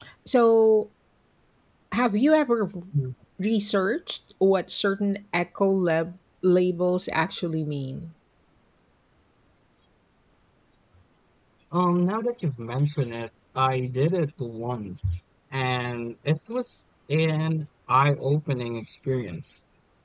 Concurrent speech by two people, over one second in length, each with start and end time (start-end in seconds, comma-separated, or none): none